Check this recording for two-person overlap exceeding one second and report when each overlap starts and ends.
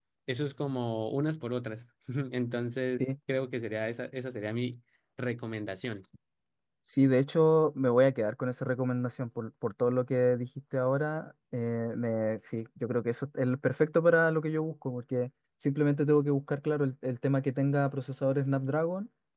none

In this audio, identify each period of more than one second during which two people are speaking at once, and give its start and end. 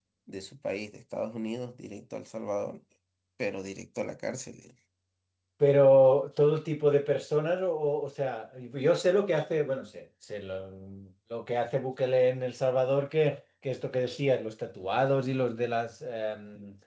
none

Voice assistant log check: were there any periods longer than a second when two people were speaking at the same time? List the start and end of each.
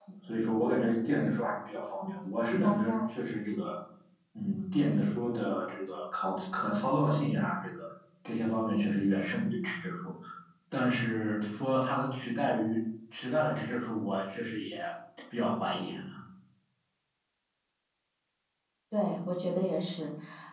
none

